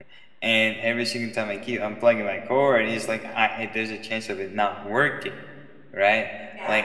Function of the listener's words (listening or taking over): listening